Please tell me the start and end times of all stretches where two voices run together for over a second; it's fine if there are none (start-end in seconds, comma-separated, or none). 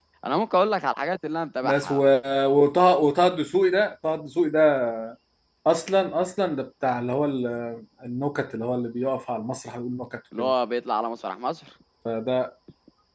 none